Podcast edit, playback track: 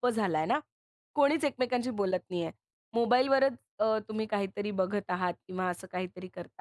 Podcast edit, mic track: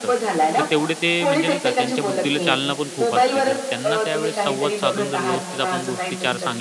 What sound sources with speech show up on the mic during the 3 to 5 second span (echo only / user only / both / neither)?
both